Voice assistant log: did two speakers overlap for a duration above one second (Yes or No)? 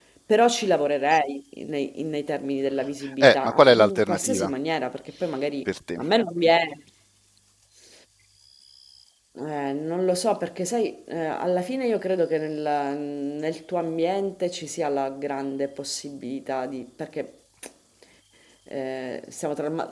Yes